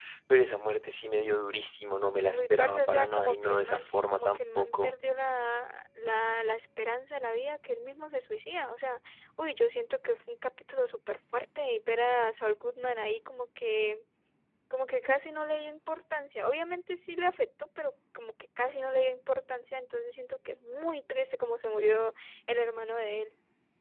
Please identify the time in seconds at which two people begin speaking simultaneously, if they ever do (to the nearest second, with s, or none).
2 s